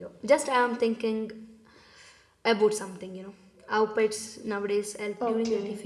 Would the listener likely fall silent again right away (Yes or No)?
No